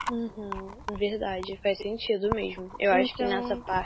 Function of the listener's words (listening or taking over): listening